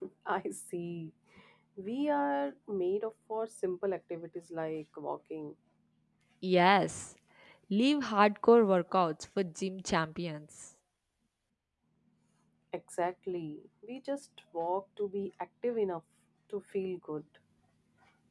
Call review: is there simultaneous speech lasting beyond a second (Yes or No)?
No